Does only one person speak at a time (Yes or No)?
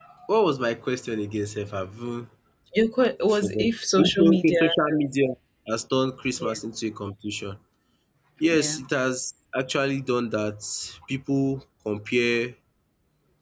No